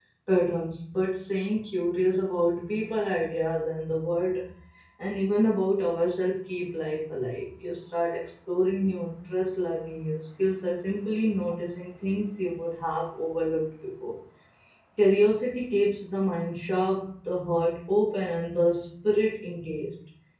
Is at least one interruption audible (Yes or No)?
No